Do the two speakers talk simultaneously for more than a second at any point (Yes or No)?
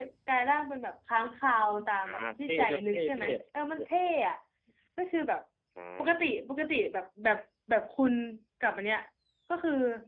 Yes